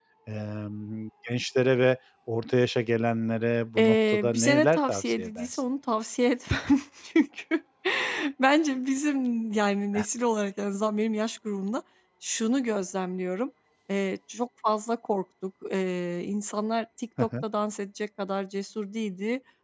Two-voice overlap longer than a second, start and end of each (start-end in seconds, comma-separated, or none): 3.8-5.5